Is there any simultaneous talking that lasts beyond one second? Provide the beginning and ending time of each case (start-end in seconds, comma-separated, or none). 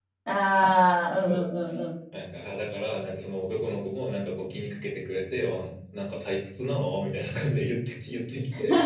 none